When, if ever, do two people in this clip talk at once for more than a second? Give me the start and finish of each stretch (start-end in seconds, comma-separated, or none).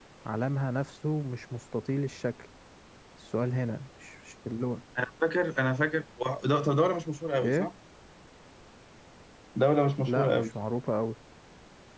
none